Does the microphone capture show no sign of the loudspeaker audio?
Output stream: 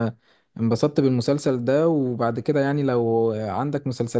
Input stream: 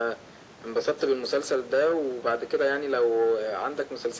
No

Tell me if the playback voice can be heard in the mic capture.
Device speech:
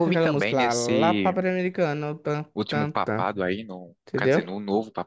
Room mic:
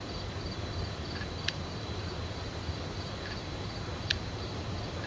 No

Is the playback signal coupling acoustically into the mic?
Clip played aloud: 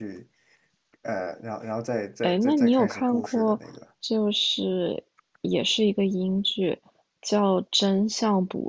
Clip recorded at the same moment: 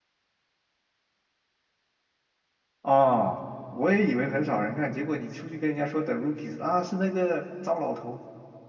No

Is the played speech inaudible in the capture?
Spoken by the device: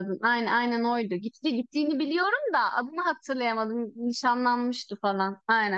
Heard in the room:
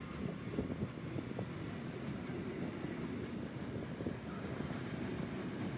Yes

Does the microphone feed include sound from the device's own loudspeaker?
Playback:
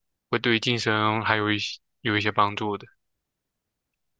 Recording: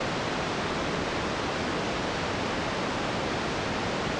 No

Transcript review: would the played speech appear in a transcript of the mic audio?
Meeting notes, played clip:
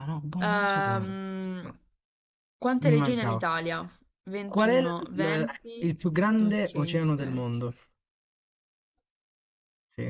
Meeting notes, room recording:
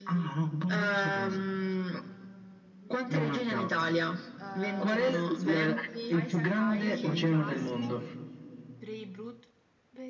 Yes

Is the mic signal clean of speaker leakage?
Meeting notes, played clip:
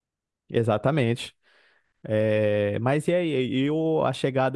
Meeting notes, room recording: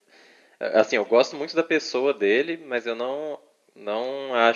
Yes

